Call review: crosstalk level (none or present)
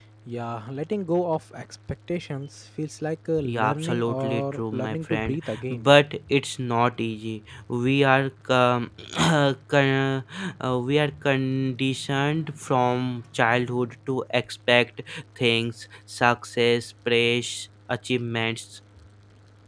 present